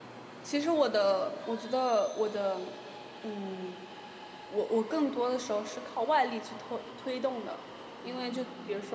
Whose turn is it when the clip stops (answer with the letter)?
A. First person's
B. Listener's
A